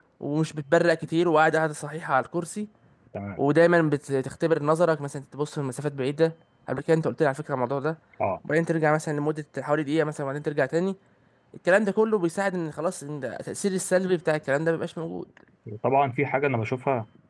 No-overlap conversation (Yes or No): Yes